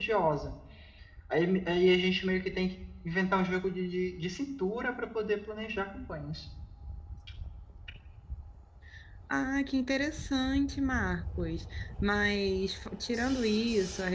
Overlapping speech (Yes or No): No